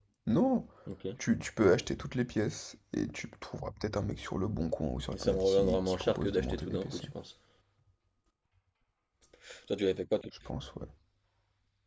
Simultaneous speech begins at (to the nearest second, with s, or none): 5 s